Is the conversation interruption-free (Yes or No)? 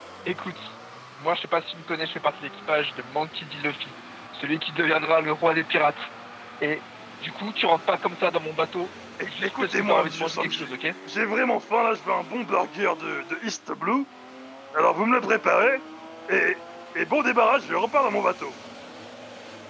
No